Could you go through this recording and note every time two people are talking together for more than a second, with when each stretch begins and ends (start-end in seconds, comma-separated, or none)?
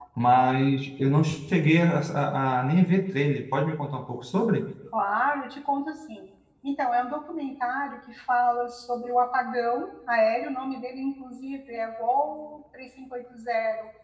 none